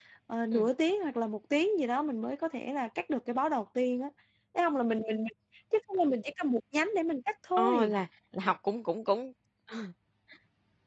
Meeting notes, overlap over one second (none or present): none